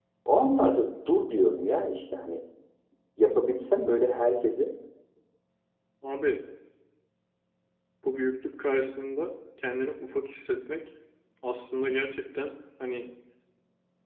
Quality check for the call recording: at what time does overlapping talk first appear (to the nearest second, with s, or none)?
none